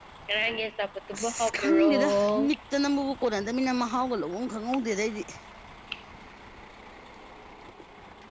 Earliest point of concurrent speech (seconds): 1.1 s

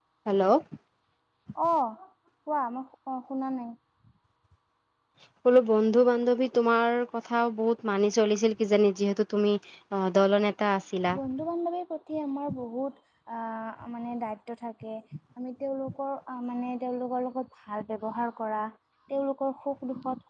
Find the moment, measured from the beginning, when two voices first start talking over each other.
none

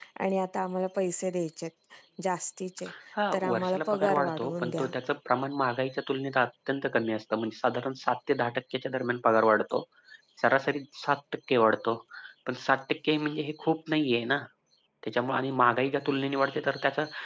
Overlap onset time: 3.3 s

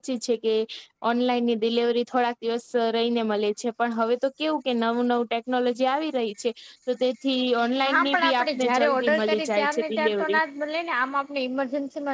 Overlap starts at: 7.8 s

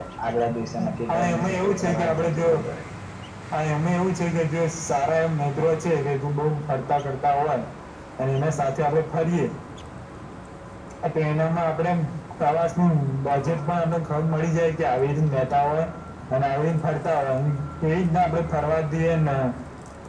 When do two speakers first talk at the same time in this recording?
1.1 s

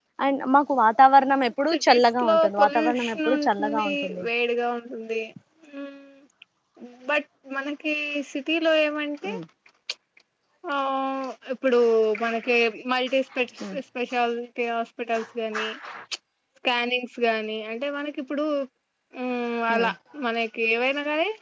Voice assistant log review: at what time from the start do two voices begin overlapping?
1.7 s

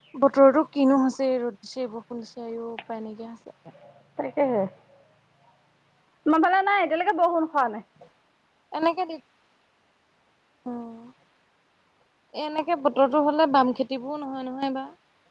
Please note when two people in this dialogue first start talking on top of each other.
none

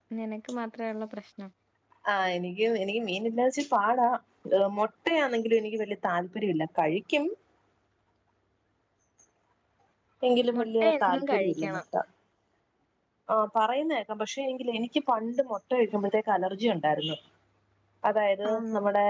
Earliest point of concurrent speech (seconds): 10.6 s

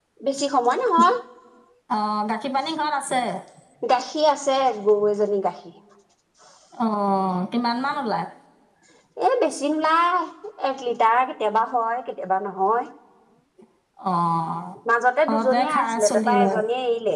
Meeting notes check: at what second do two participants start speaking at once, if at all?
15.3 s

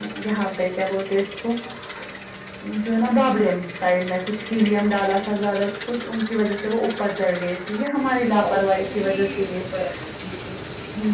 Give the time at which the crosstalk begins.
8.3 s

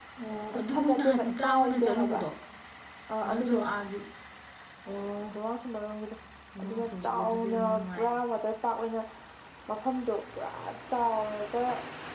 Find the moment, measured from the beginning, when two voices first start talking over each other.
0.7 s

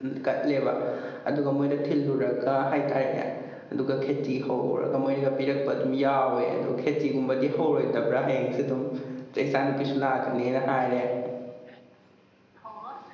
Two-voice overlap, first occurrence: none

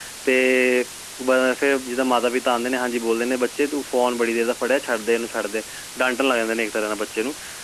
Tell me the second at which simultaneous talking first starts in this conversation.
none

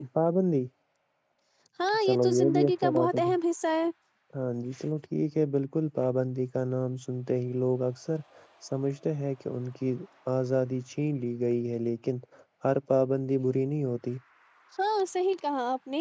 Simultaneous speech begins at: 2.0 s

